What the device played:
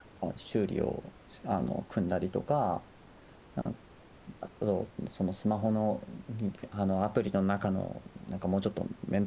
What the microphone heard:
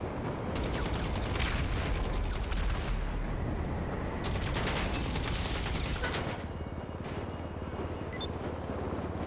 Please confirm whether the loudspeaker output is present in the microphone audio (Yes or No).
No